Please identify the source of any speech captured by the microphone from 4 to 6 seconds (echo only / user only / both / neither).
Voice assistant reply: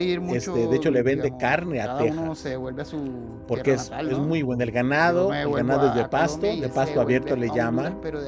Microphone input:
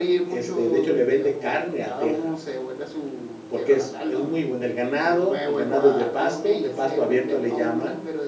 echo only